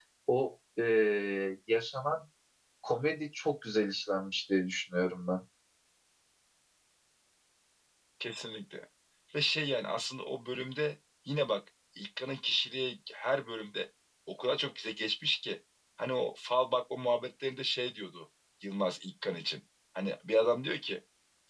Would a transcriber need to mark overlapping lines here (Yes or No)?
No